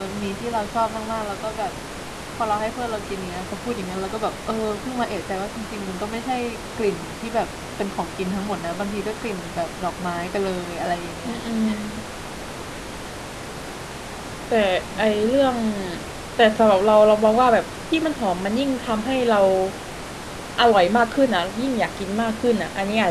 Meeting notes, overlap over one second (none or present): none